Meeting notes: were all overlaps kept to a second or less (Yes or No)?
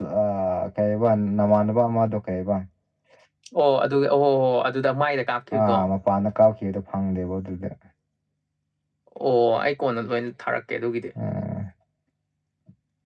Yes